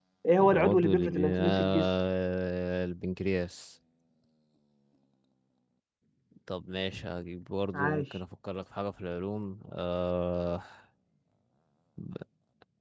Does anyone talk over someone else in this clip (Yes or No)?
Yes